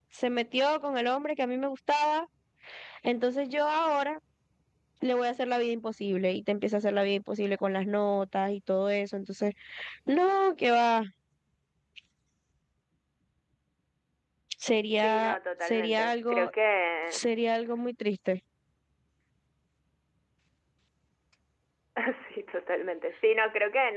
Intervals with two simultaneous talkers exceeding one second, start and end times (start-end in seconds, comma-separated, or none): 15.0-16.5